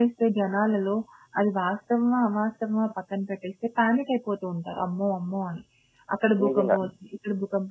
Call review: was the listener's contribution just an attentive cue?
Yes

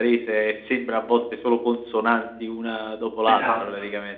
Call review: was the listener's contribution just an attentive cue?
No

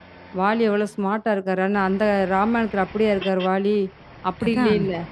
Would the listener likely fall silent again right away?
Yes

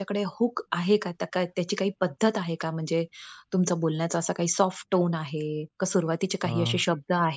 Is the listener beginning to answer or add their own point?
No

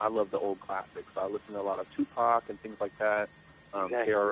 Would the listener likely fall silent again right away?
Yes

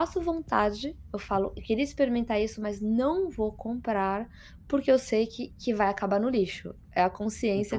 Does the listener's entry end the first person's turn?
Yes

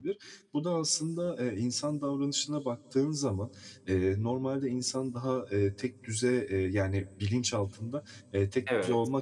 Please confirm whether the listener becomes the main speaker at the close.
No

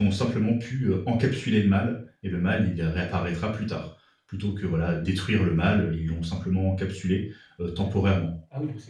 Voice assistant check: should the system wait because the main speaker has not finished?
No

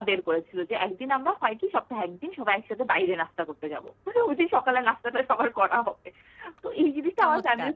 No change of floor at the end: Yes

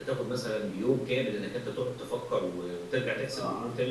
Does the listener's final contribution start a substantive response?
Yes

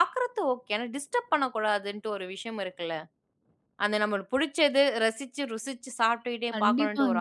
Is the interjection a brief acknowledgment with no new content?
No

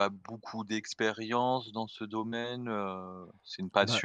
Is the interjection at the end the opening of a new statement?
No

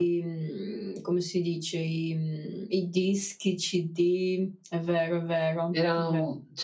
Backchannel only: No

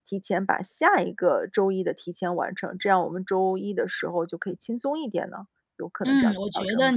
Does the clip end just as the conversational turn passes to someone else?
Yes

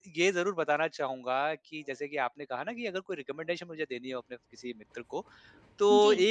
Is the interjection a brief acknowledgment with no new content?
Yes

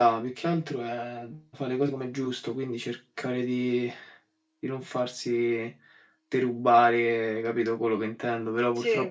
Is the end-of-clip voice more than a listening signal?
No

